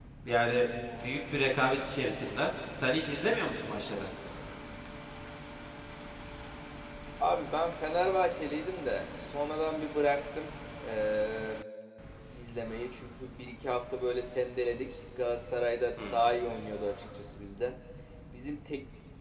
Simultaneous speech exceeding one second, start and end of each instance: none

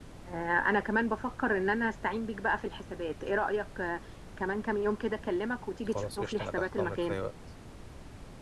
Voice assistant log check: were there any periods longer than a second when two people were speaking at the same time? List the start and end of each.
6.0-7.2

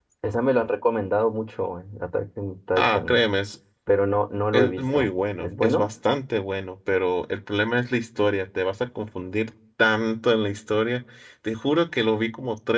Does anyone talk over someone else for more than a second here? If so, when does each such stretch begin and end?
4.5-5.9

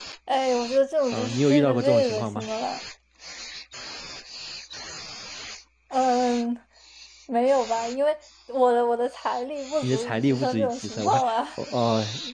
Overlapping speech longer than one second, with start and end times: 1.1-2.5, 9.8-11.4

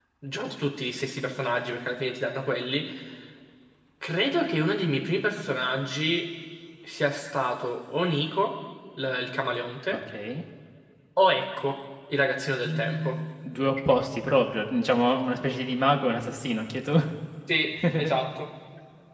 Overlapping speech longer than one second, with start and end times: none

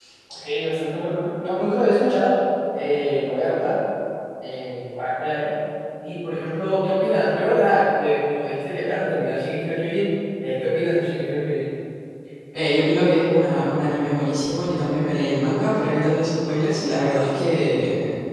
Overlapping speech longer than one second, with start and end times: none

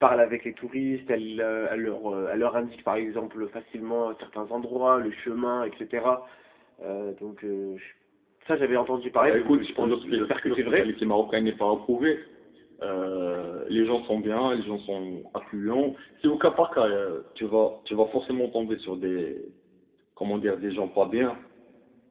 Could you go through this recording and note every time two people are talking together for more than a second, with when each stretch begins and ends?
9.1-10.9

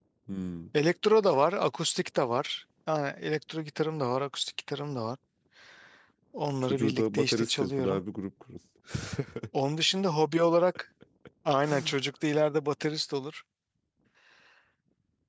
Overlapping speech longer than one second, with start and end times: 6.6-8.0

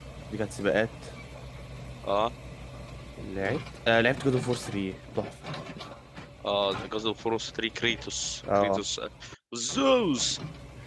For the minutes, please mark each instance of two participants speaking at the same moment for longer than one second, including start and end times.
none

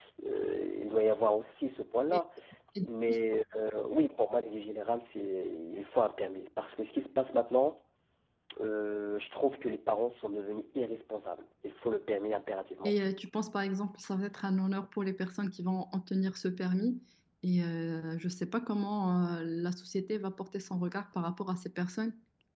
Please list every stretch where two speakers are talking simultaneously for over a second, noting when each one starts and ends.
none

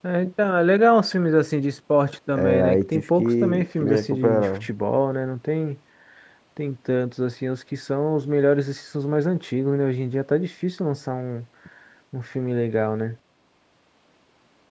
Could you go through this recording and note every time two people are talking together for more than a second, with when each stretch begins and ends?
2.4-4.7

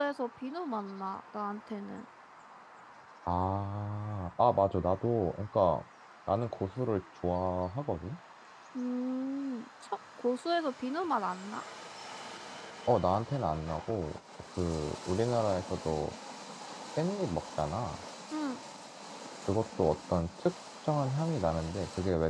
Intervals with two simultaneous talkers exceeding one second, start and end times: none

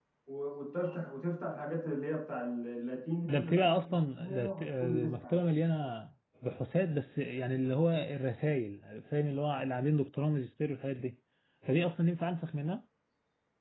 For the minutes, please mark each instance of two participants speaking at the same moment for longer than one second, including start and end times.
3.2-5.1

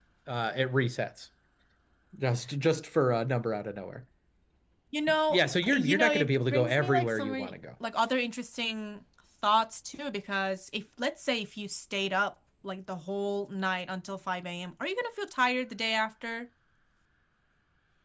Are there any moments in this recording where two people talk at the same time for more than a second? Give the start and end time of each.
5.3-7.5

